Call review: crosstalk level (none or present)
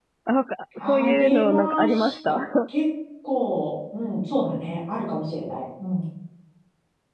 present